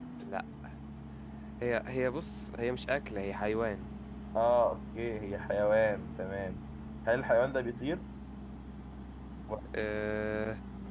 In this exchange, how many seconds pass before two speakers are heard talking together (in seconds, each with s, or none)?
none